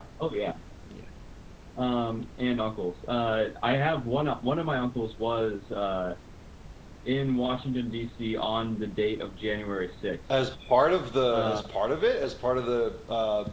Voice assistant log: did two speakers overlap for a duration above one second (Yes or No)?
No